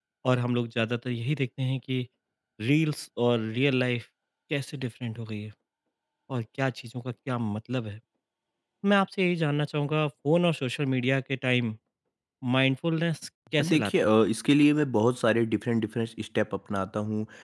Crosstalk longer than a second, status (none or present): none